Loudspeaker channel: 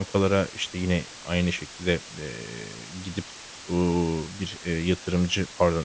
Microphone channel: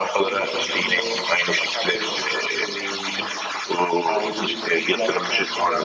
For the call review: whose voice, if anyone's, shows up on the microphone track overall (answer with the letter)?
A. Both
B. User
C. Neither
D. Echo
A